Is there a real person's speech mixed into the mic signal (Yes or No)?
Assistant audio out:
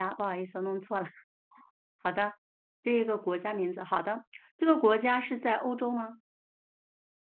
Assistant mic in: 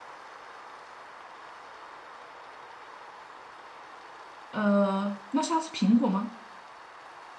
Yes